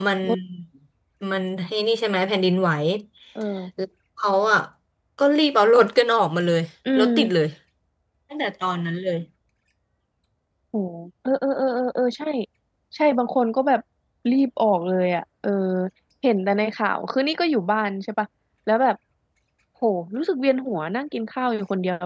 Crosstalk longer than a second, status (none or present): none